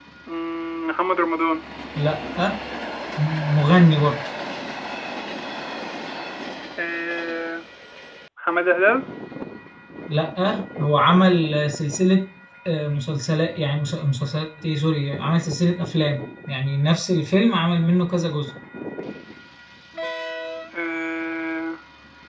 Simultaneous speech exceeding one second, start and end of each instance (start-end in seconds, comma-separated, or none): none